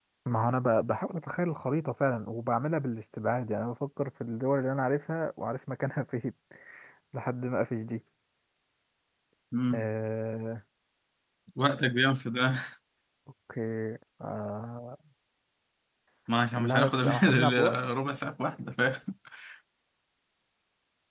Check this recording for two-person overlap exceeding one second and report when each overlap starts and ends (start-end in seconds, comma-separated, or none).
16.6-17.8